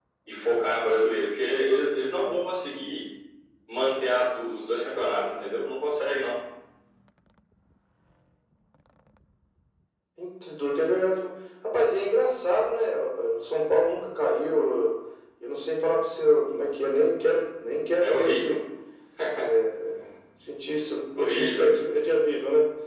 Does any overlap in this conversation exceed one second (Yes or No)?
No